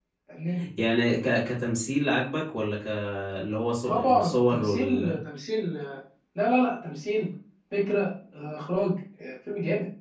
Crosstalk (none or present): present